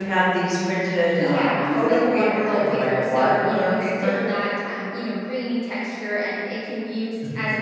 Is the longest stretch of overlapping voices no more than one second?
No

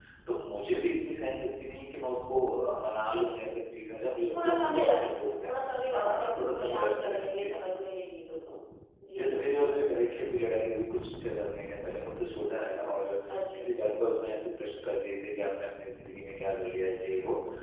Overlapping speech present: Yes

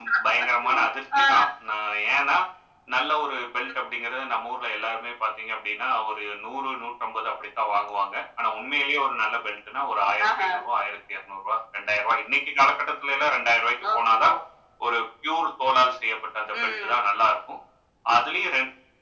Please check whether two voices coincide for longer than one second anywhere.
No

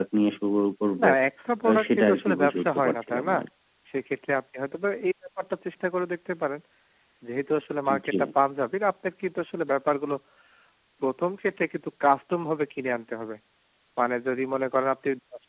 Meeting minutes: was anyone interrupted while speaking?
Yes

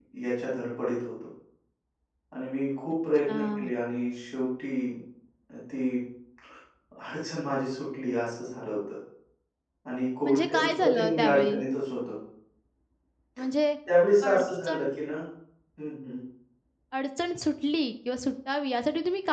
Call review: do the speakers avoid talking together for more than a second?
No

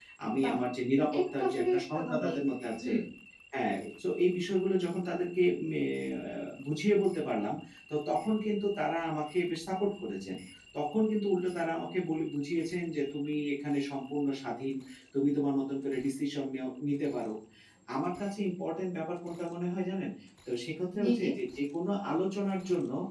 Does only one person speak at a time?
No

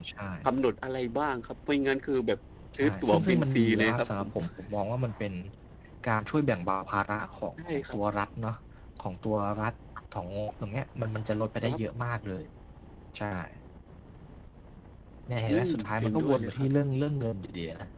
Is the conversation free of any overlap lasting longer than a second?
No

